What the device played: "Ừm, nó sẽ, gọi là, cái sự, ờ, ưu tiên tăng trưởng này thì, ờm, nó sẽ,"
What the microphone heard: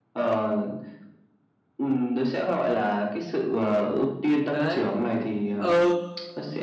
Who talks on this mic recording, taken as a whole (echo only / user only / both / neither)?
both